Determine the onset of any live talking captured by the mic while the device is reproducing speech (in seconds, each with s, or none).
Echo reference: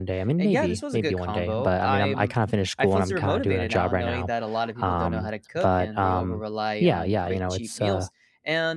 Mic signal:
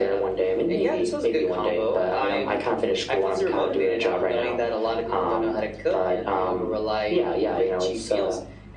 none